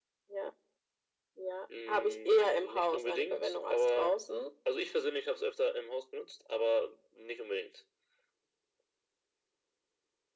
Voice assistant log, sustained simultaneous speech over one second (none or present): present